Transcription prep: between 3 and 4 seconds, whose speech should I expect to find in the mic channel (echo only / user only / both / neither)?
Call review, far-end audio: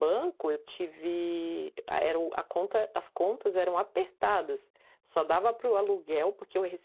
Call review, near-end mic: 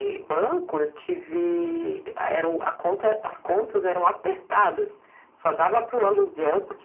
echo only